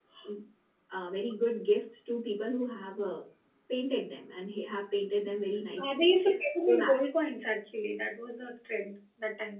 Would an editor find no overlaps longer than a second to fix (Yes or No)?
Yes